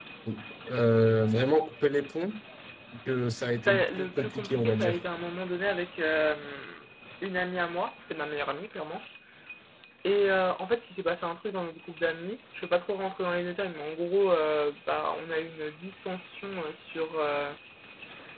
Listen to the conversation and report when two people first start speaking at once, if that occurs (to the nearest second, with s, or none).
4 s